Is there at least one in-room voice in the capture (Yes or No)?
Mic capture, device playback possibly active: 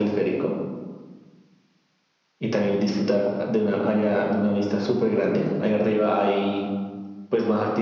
No